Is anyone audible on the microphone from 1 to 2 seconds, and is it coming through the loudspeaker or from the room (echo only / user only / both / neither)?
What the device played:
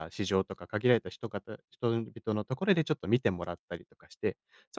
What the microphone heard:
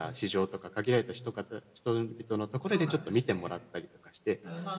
echo only